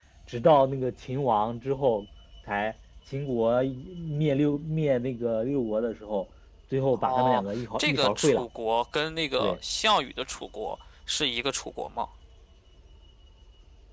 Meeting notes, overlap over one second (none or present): present